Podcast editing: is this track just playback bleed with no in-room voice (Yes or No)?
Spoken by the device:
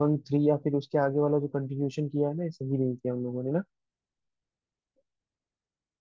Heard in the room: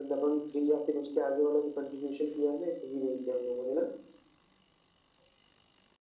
Yes